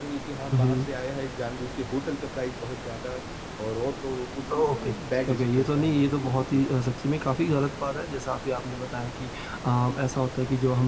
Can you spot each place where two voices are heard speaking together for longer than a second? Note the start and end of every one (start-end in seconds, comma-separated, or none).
5.3-6.7